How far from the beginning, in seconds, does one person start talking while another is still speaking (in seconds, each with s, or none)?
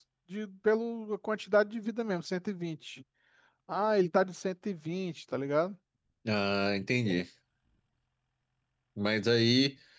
none